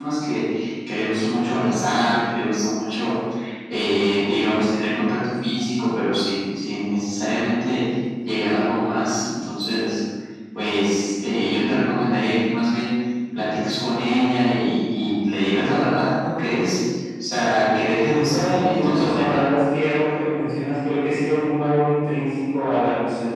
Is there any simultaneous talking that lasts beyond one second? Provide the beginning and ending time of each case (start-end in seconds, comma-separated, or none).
18.2-19.5